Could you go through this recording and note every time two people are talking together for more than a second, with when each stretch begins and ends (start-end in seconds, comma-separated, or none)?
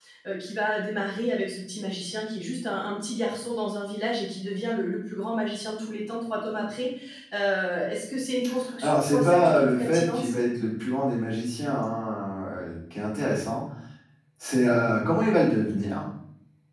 8.8-10.3